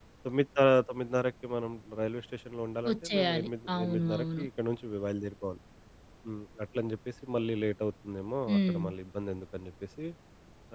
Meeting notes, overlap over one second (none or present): present